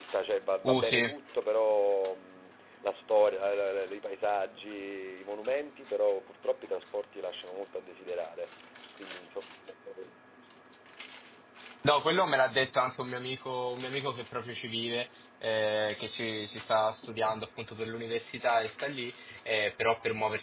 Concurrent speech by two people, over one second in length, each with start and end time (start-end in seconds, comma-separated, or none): none